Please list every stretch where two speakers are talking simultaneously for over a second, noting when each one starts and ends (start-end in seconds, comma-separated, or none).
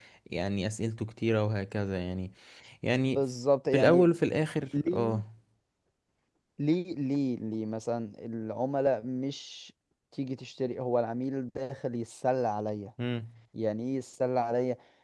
none